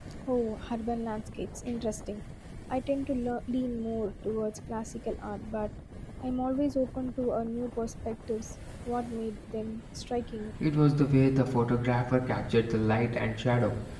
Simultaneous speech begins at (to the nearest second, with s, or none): none